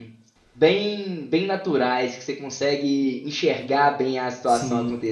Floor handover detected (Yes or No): No